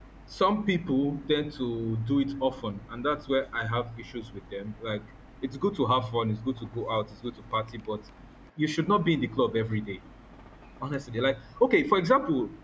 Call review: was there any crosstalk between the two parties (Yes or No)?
No